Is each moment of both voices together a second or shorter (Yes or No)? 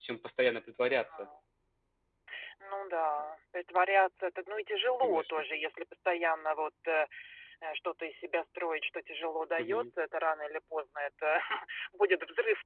Yes